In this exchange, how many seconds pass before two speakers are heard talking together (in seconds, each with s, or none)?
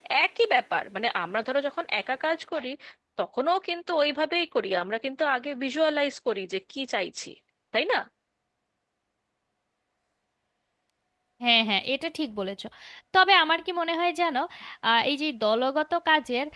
none